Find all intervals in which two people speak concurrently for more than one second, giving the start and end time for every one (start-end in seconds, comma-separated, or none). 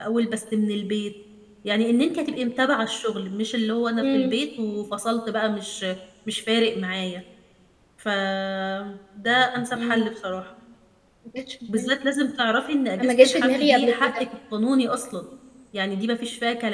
13.0-14.2